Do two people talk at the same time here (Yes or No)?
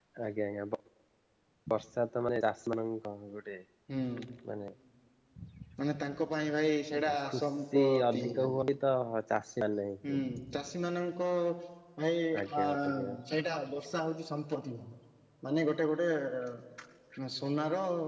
Yes